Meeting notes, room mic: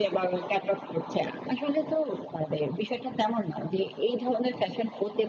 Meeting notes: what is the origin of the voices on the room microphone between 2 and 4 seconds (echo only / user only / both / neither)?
echo only